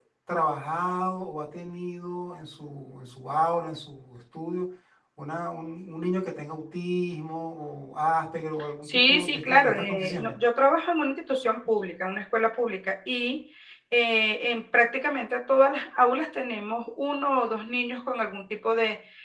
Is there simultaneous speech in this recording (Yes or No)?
Yes